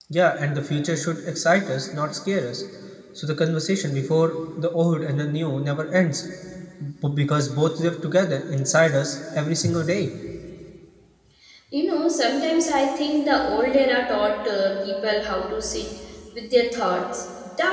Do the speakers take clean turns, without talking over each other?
Yes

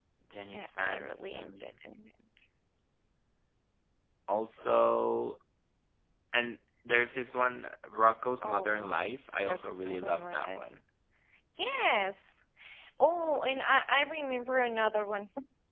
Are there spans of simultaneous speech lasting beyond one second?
Yes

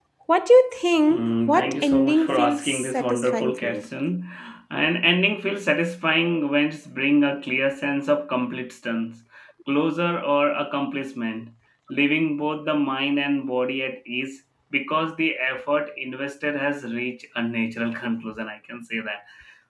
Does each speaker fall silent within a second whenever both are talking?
No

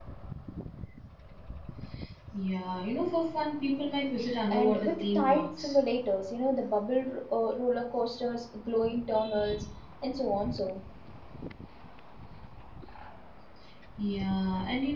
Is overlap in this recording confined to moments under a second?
No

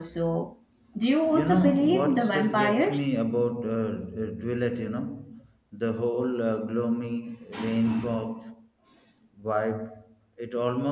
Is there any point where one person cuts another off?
Yes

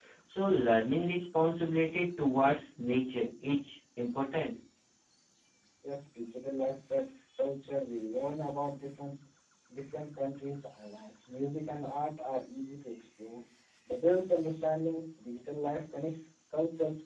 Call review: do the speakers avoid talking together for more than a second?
Yes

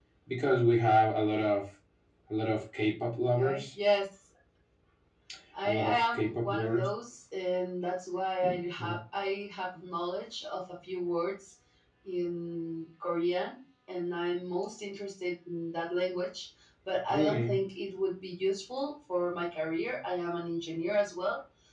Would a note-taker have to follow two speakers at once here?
Yes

